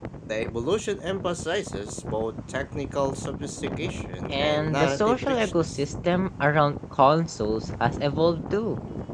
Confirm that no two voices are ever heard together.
No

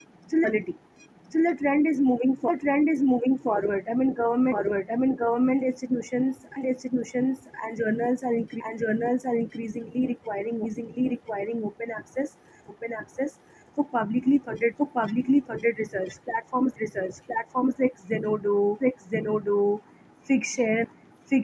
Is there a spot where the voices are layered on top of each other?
No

